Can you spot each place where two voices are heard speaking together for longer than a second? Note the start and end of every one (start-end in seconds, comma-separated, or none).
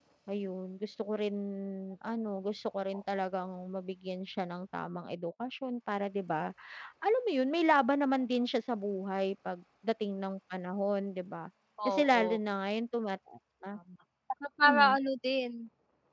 none